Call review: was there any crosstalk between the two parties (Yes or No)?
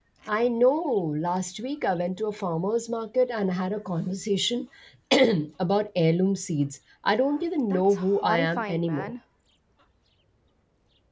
Yes